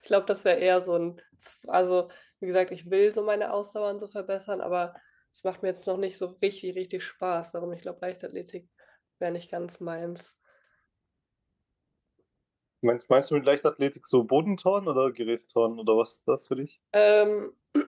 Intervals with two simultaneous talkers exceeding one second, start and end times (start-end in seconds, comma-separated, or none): none